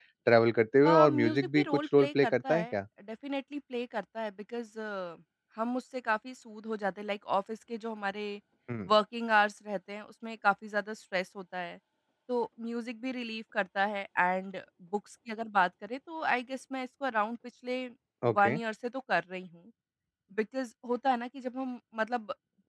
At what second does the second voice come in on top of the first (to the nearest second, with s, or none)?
1 s